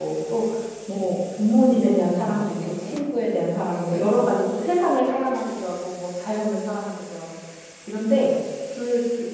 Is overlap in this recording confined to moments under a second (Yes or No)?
No